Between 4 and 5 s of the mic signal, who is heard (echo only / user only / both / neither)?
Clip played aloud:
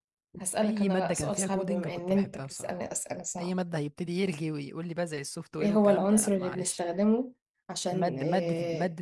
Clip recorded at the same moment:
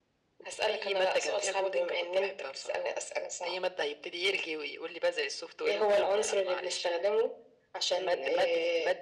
echo only